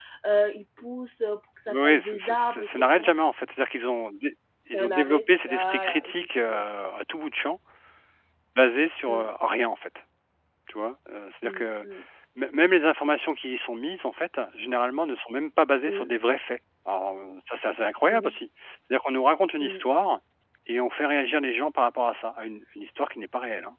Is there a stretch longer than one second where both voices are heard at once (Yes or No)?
Yes